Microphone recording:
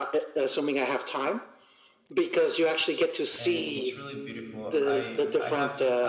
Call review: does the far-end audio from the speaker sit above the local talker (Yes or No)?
Yes